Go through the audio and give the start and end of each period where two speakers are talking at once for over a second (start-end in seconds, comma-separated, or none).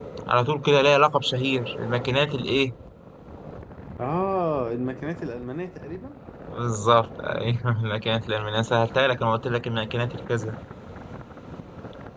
none